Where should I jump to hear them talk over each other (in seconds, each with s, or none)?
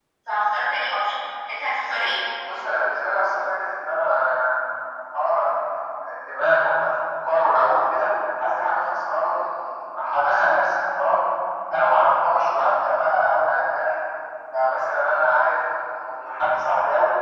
none